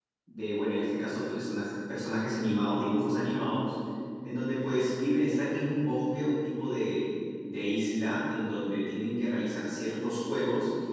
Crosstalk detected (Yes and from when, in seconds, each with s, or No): No